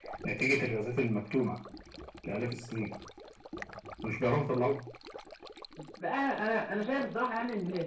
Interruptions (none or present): none